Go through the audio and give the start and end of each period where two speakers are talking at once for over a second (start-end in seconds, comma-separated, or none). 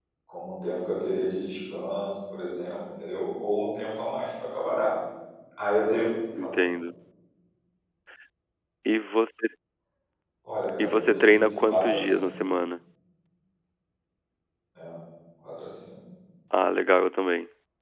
10.8-12.2